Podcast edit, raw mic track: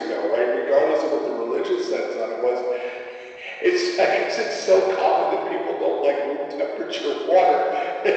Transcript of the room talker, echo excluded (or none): none